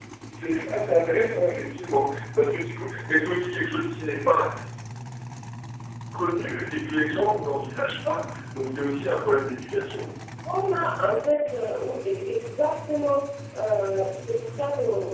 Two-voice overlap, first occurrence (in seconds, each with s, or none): none